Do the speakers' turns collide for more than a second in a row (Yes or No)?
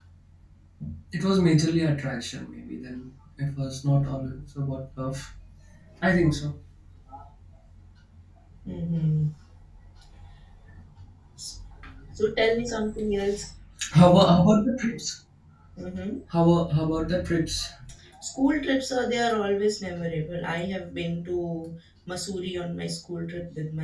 No